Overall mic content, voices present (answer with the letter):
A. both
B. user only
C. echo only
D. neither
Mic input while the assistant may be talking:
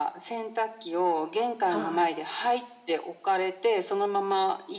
A